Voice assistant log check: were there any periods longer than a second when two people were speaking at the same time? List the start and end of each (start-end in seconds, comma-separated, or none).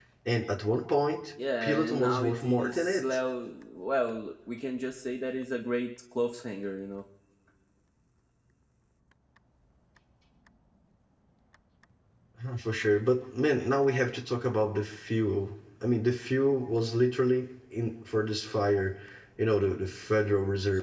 1.6-3.0